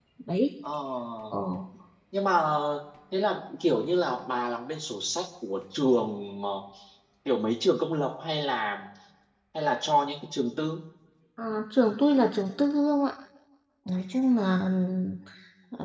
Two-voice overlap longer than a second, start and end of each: none

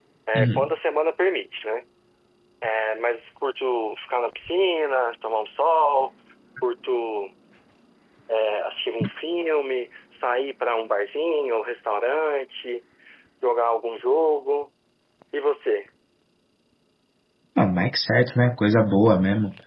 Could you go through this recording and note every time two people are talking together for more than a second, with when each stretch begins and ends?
none

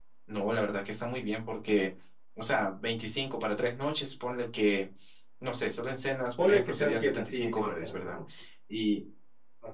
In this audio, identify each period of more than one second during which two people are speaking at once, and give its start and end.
6.4-8.2

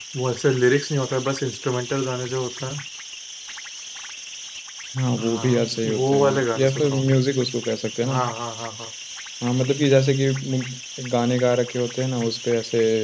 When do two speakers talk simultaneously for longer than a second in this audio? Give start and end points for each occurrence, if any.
5.2-7.0

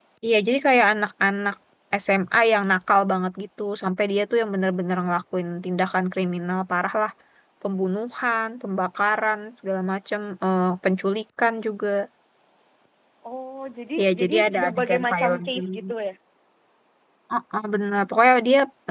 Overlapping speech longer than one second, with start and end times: 14.0-15.9

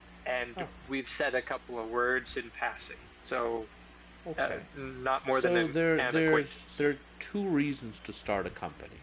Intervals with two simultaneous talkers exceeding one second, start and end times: 5.3-6.8

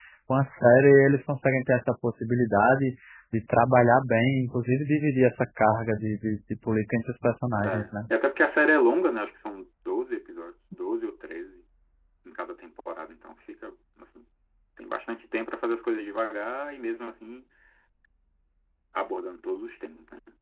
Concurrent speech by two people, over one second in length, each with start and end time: none

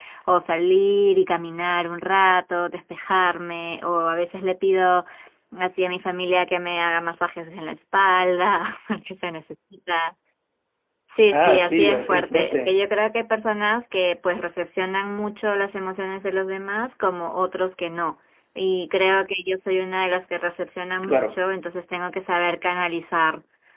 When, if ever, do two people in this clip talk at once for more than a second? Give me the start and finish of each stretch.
11.3-12.7

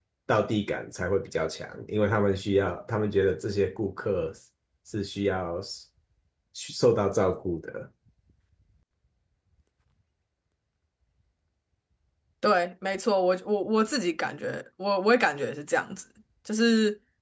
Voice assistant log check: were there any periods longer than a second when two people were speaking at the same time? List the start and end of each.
none

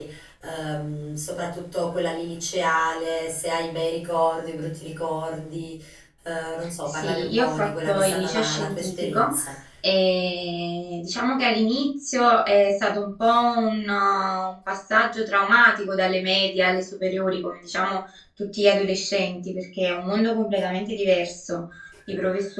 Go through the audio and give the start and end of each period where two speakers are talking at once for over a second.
6.9-9.3

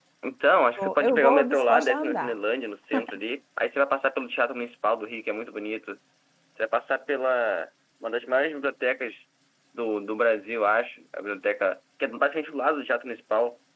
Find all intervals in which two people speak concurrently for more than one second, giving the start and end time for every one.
0.8-2.3

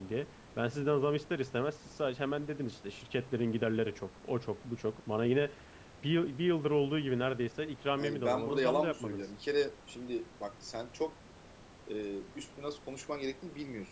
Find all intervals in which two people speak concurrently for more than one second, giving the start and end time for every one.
8.0-9.2

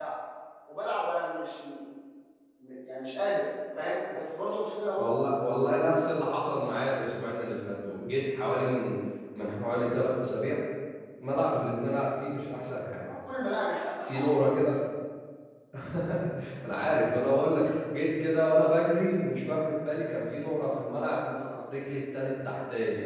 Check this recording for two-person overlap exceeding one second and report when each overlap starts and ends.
none

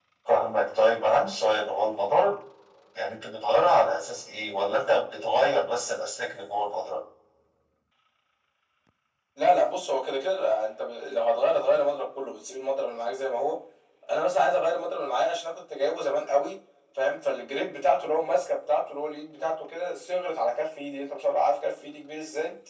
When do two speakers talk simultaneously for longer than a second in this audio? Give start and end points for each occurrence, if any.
none

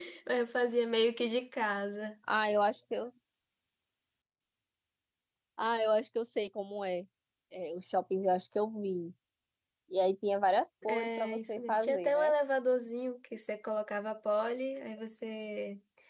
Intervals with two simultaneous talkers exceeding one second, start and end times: 10.9-12.3

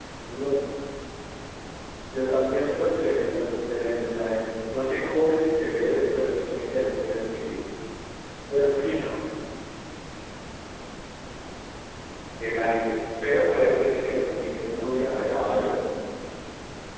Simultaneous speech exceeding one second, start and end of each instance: 14.3-15.7

